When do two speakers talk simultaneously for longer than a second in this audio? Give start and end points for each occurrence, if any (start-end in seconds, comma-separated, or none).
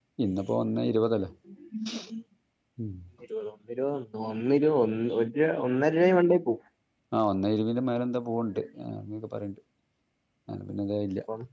none